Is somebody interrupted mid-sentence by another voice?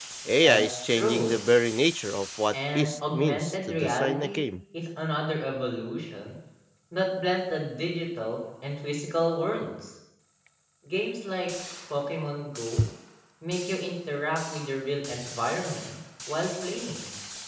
Yes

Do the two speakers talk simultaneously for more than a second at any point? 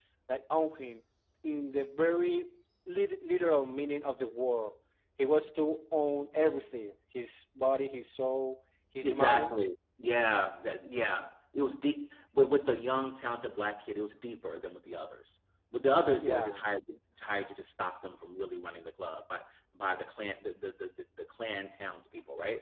No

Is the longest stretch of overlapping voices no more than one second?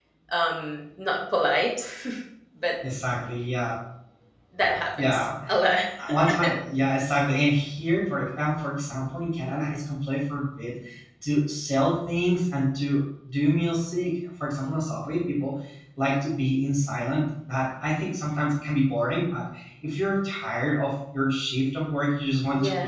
Yes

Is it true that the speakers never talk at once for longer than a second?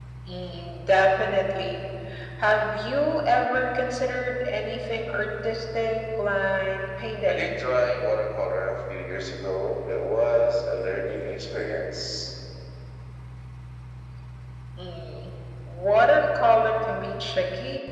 Yes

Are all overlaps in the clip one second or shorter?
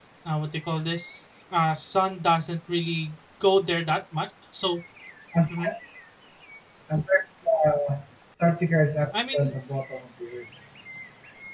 Yes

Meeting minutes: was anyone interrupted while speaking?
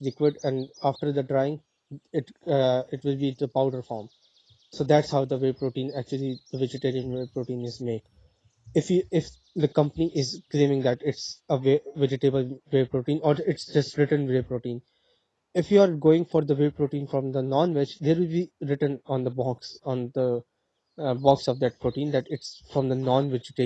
No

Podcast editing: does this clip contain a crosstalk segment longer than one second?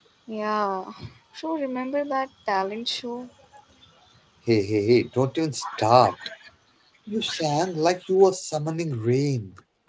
No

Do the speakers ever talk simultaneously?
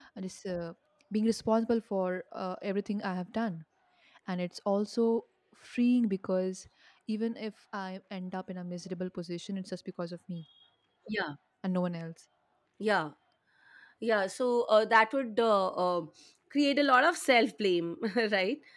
No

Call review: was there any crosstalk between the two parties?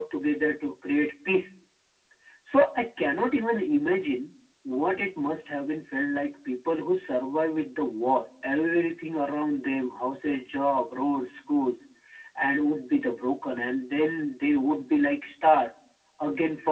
No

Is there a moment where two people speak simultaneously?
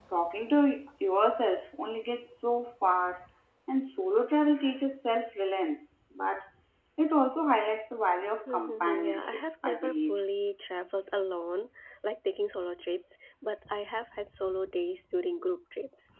Yes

